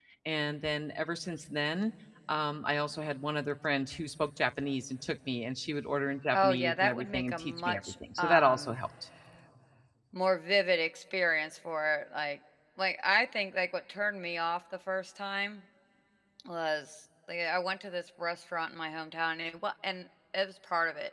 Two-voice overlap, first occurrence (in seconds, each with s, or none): 6.3 s